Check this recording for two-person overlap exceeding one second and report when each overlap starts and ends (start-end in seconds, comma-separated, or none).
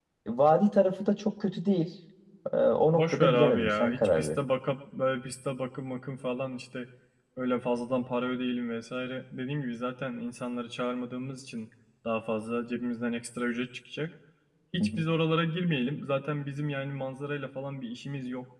2.9-4.4